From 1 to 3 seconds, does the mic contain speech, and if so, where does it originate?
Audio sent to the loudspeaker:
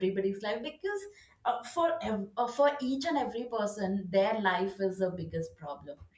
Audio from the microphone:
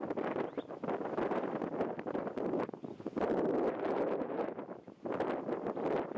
neither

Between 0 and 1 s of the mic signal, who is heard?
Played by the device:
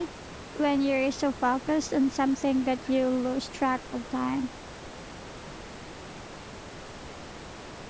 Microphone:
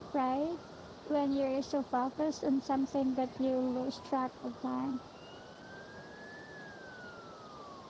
echo only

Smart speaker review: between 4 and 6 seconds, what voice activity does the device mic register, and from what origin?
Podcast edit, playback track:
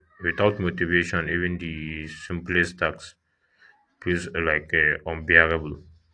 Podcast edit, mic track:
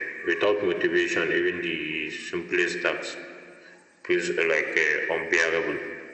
echo only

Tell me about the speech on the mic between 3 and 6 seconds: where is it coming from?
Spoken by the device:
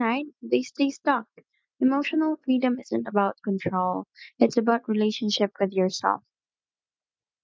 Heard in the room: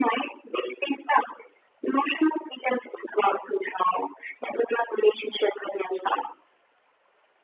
echo only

